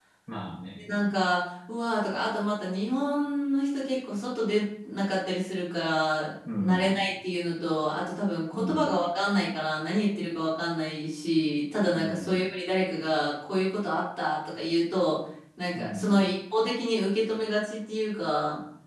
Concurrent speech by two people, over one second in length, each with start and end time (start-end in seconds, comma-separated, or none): none